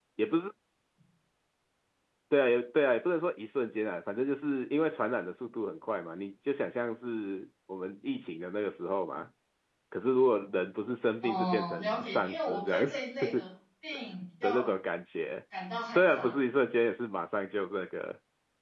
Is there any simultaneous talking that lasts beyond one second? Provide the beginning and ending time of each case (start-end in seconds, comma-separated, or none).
11.2-13.0